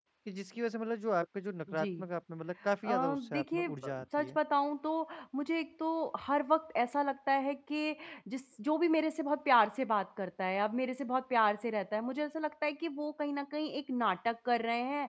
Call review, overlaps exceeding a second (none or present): present